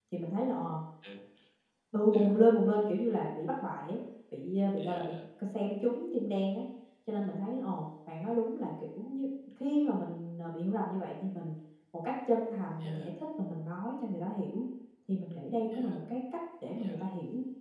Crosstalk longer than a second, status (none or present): none